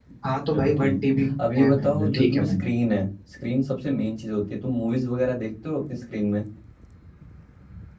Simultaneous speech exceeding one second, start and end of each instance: 0.5-2.7

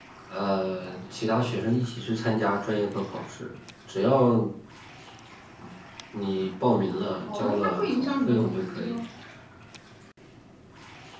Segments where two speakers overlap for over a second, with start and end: 7.3-9.0

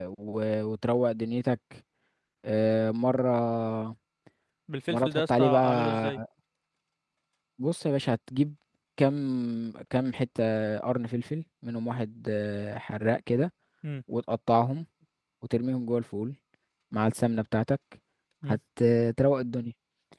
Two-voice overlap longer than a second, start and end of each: 4.9-6.2

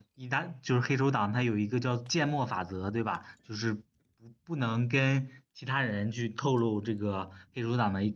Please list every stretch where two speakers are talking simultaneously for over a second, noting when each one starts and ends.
none

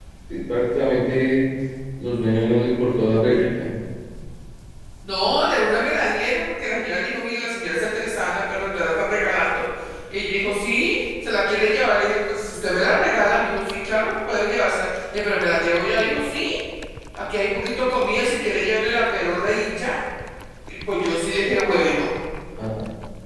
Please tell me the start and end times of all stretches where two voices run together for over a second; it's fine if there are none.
none

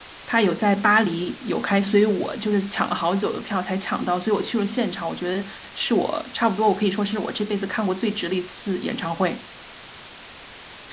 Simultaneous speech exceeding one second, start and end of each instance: none

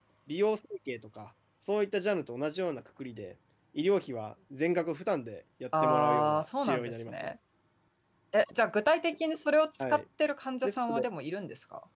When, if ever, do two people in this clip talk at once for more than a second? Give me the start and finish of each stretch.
5.8-7.3

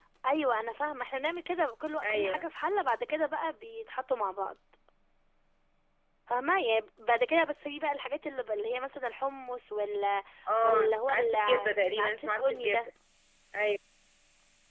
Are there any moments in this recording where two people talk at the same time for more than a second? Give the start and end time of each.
10.6-12.9

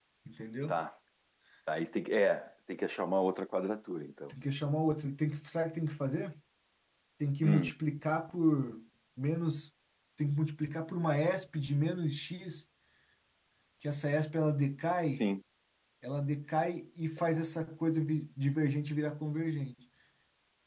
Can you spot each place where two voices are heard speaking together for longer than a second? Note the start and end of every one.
none

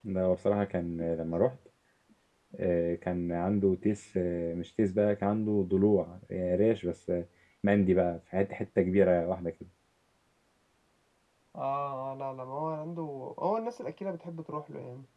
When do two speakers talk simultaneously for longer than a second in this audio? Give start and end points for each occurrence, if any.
none

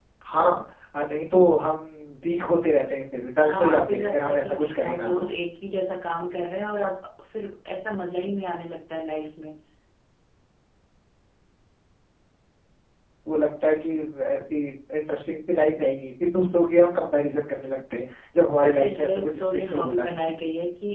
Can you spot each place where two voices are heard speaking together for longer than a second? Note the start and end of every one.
3.4-5.3, 18.6-20.3

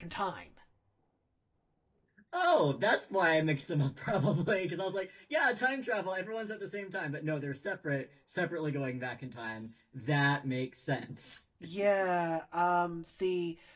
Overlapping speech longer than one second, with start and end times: none

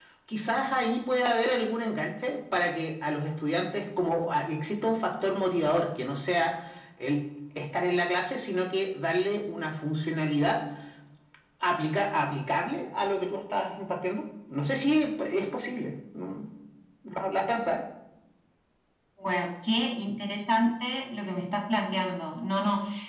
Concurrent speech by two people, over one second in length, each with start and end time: none

